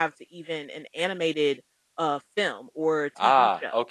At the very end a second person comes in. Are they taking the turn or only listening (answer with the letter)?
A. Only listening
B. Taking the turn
B